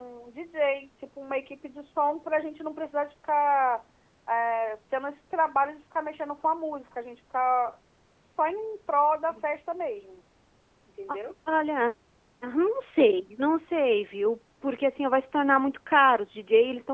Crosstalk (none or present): none